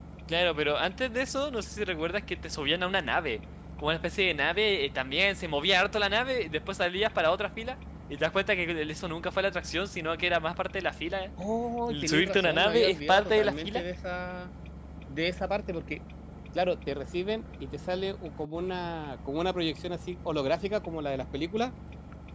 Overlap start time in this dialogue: 11.9 s

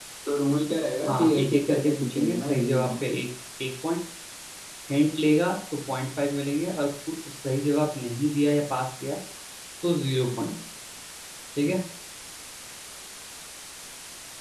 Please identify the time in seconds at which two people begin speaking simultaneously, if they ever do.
1.1 s

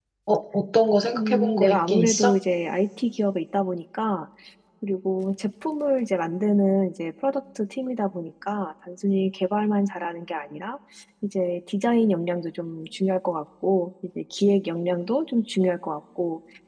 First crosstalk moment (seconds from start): 1.1 s

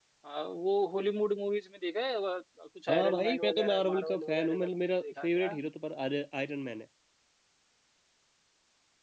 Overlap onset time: 2.9 s

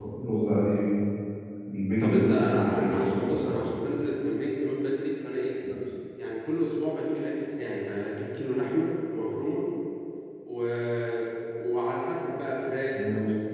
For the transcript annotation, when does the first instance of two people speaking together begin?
2.0 s

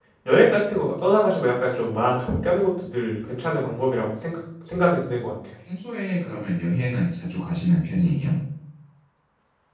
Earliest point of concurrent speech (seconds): none

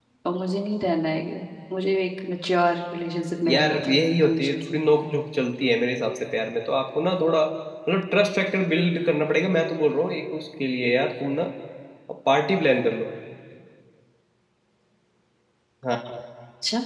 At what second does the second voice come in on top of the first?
3.5 s

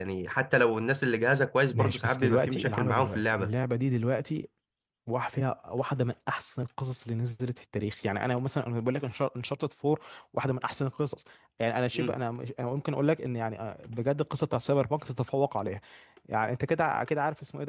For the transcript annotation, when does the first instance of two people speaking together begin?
1.7 s

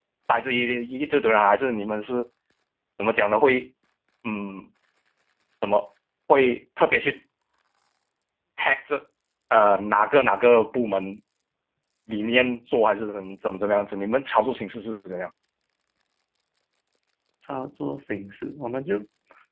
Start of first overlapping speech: none

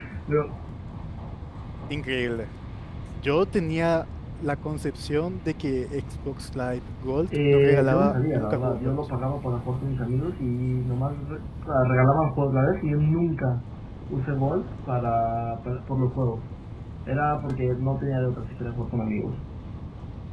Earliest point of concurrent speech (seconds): 7.3 s

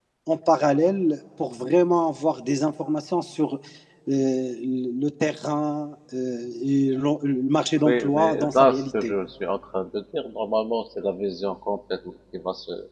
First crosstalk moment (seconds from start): 7.8 s

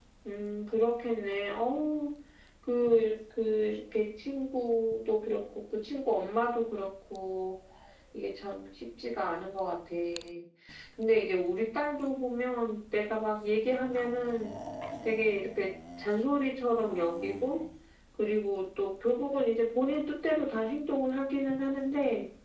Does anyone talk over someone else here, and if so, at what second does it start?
none

